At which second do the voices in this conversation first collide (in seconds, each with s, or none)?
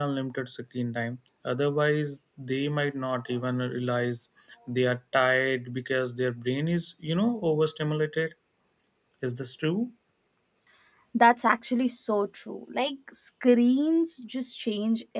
none